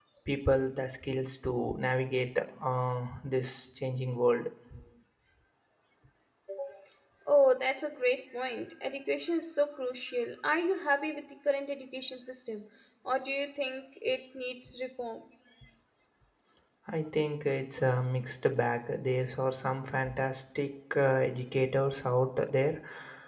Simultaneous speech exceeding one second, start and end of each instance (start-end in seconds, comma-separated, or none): none